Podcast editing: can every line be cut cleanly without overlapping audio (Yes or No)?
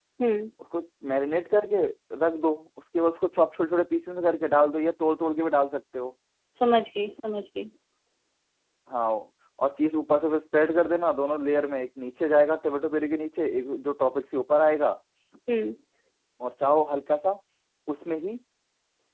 Yes